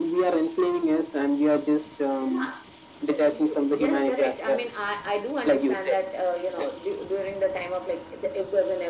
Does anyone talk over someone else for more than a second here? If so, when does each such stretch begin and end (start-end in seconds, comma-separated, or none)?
3.1-4.7